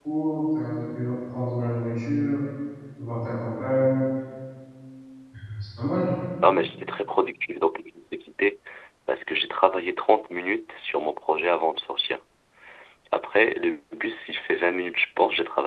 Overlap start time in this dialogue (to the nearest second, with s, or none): none